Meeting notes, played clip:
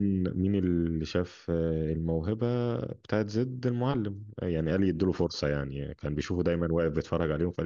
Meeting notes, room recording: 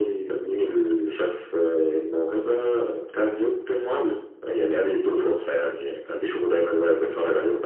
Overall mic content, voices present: echo only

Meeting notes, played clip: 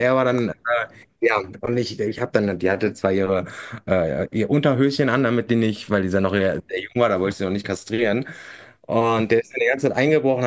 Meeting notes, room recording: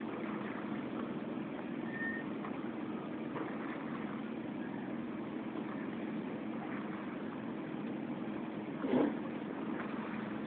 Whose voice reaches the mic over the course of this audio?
neither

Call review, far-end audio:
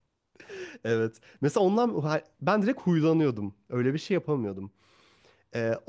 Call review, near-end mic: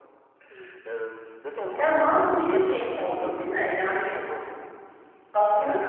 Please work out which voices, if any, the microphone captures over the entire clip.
both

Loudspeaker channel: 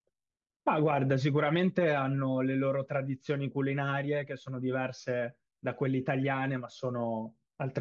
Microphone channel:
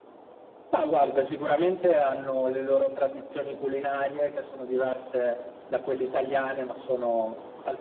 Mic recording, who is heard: echo only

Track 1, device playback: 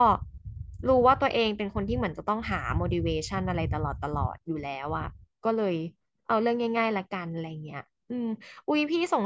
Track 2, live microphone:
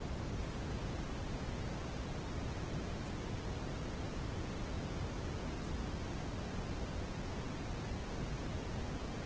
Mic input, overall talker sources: neither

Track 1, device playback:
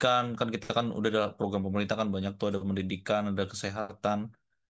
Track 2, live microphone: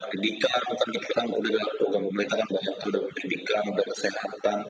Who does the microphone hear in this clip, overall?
echo only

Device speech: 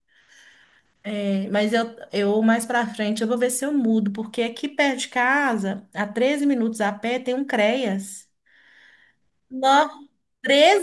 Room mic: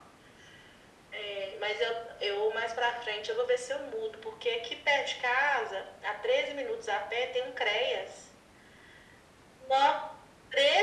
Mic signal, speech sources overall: echo only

